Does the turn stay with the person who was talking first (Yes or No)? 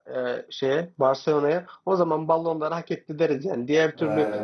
Yes